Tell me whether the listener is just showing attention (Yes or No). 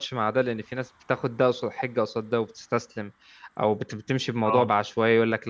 Yes